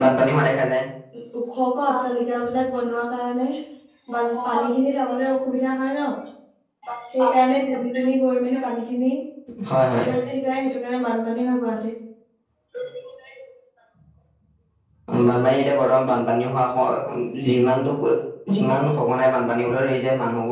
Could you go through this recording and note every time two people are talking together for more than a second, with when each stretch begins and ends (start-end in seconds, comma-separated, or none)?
none